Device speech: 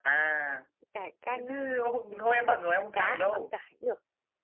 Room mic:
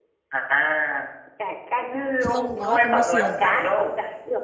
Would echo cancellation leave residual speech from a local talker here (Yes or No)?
Yes